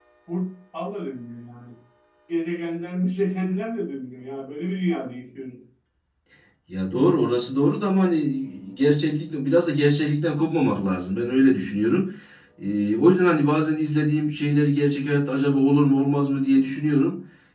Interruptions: none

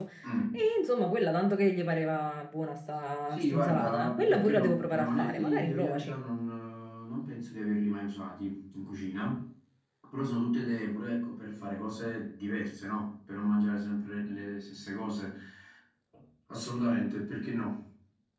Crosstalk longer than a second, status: present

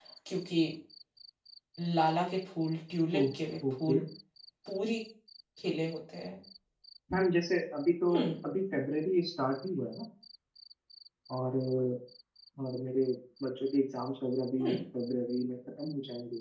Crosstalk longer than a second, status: none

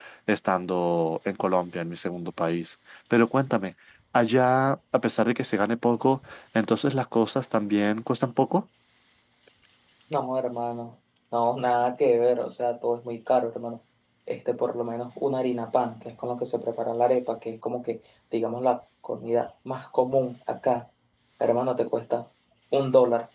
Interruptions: none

